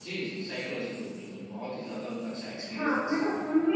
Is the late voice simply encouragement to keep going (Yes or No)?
No